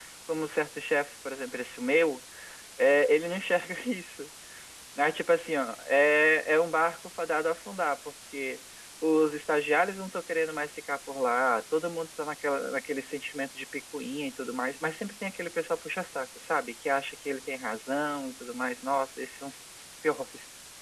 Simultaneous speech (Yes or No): No